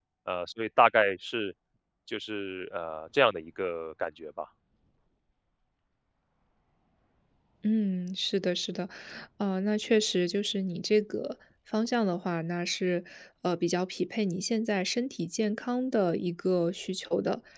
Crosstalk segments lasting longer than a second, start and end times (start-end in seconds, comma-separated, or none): none